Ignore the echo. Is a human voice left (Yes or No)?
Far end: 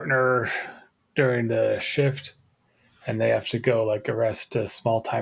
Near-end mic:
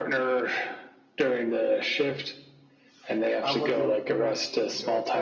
Yes